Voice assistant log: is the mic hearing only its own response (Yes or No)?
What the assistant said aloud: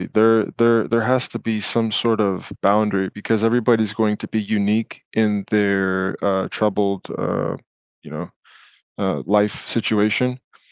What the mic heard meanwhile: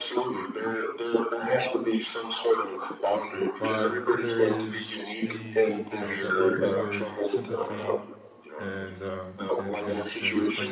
No